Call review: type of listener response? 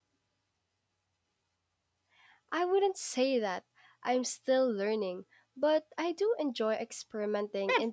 taking over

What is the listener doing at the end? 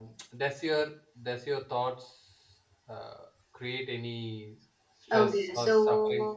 taking over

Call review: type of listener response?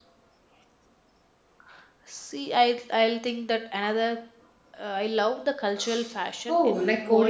taking over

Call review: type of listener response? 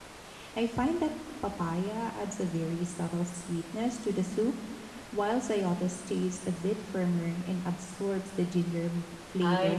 taking over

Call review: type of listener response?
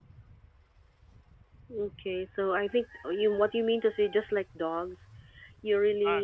listening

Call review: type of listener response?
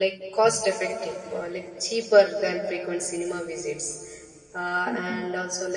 listening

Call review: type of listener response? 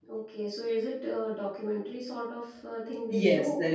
taking over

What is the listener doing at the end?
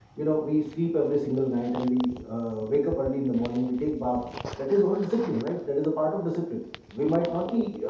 listening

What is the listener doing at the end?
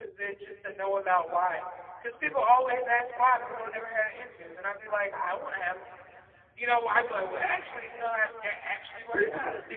taking over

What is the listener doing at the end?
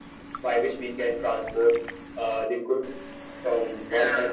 listening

